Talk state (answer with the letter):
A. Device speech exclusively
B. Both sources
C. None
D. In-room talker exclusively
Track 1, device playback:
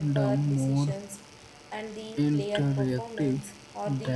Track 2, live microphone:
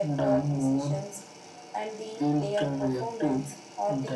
A